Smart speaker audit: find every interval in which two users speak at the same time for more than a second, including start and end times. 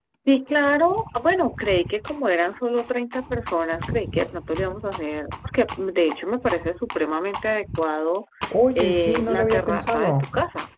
8.8-10.3

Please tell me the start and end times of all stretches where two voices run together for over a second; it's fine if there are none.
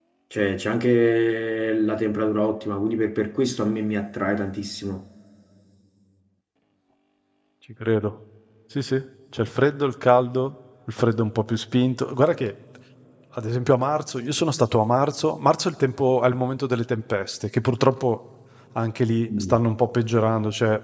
none

